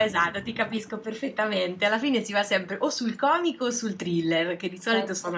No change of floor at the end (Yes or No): Yes